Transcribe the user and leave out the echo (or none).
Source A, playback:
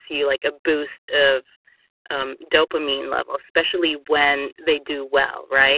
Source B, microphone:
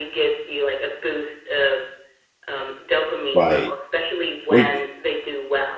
Right, wait it